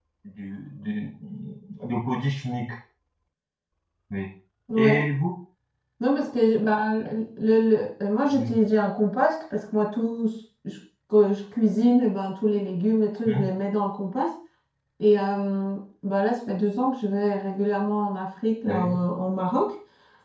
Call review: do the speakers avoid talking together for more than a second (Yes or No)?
Yes